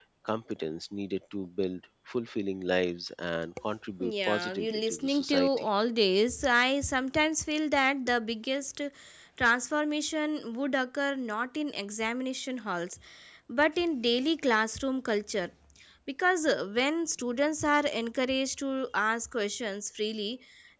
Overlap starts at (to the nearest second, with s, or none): 4 s